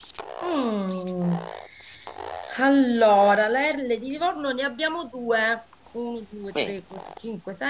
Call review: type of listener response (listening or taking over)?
listening